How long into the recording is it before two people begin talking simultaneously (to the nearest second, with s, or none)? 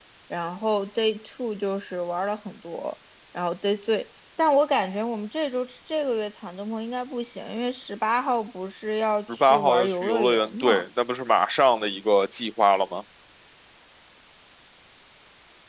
9 s